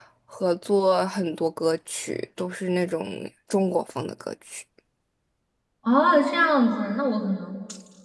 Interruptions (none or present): none